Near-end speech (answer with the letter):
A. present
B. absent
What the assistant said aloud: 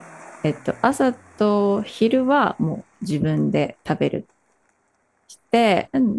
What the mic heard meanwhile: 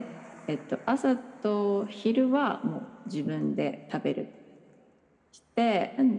B